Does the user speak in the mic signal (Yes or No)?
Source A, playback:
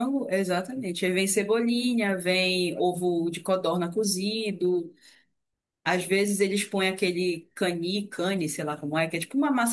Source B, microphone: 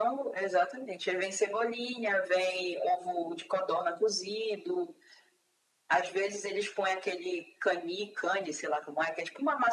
No